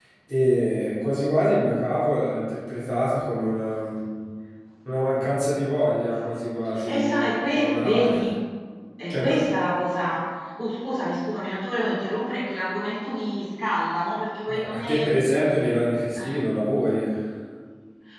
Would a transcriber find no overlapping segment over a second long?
No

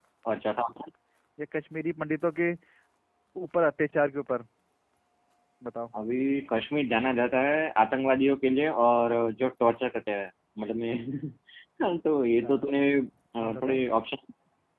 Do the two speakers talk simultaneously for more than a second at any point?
No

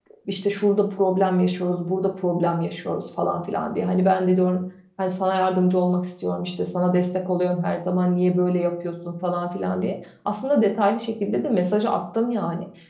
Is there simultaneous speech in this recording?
No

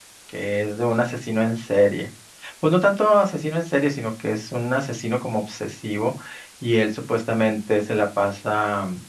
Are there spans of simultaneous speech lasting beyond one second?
No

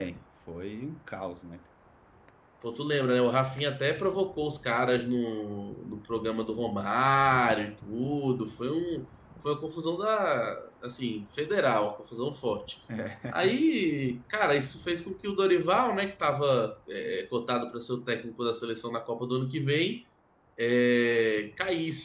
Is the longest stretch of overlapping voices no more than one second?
Yes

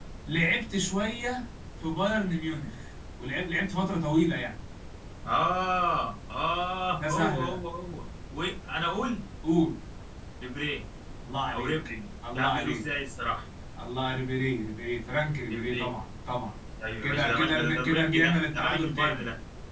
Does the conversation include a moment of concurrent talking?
Yes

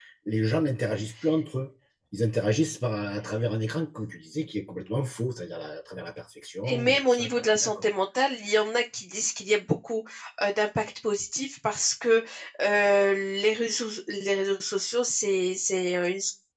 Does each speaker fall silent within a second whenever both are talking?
No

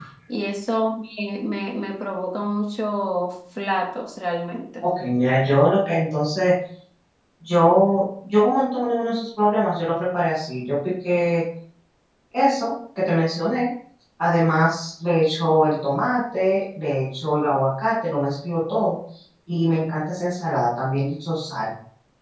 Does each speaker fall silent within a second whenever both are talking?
Yes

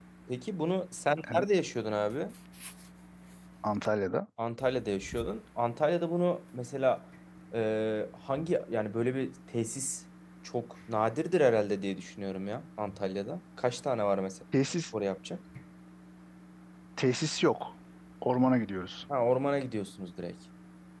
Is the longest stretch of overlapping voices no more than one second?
Yes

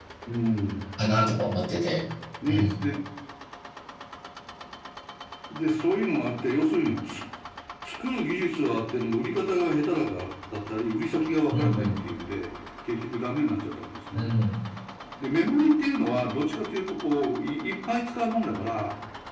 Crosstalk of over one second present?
No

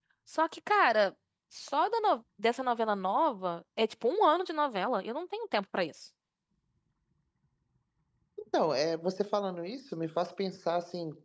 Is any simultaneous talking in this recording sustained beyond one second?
No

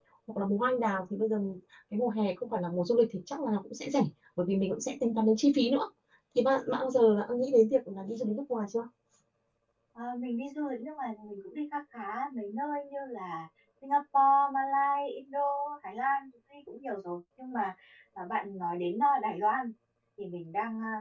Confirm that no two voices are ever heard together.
Yes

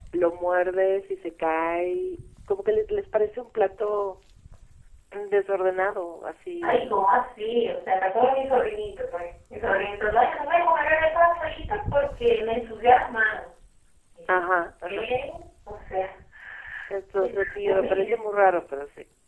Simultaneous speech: Yes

